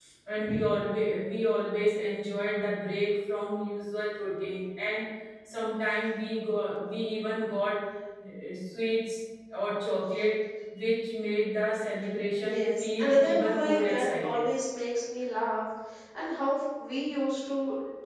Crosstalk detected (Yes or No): Yes